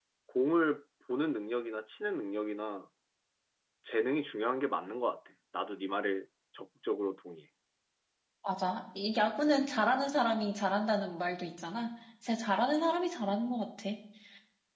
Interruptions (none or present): none